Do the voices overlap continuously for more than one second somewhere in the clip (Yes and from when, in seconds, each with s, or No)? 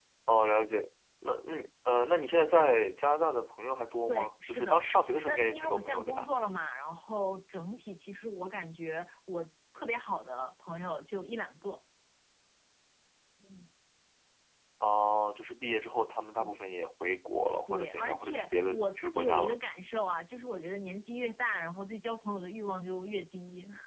Yes, from 4.1 s